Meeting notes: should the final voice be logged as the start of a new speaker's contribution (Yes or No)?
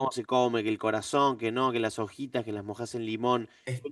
No